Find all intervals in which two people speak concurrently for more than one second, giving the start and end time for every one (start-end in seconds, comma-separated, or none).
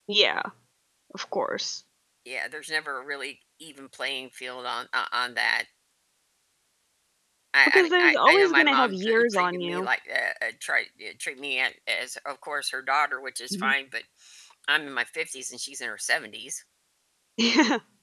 7.7-9.9